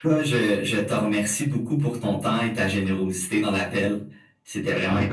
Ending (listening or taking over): taking over